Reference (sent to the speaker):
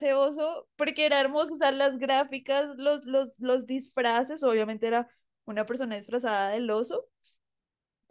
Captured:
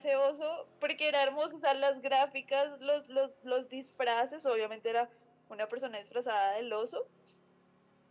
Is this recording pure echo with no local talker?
Yes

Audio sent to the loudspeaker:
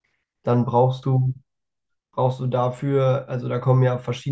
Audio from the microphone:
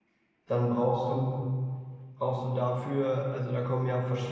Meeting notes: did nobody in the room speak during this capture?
Yes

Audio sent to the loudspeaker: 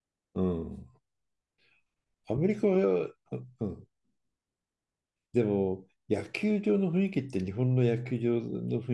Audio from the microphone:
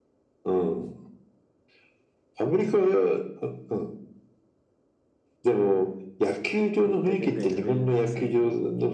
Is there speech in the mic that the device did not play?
Yes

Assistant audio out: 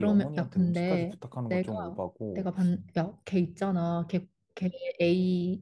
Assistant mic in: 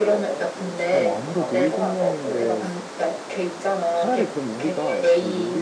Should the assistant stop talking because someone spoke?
Yes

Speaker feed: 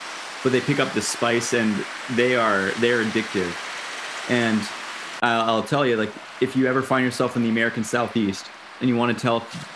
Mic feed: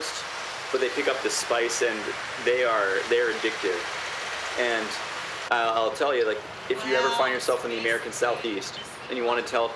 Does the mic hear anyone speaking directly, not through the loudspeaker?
Yes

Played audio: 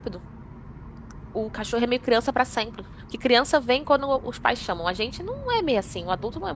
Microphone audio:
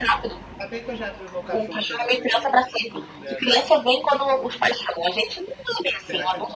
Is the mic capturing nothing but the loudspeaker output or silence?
No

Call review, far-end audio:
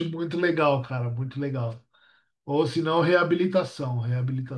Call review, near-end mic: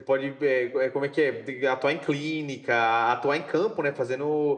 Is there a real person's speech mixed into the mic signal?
Yes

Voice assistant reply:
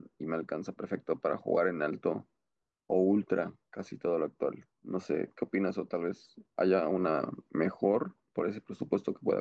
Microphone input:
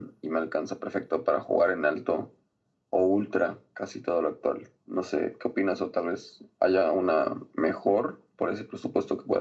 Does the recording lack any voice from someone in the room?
Yes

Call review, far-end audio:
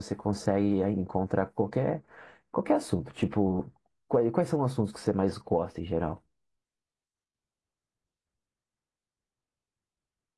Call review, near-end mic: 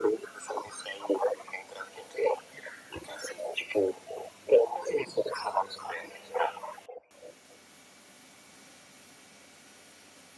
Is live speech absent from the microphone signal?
Yes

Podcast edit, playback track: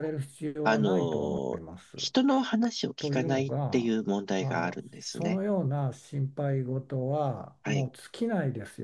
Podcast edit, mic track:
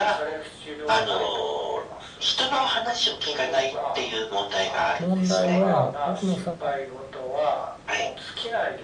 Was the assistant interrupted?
Yes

